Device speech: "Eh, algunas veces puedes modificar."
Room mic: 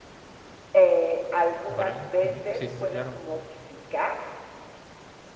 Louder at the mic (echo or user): echo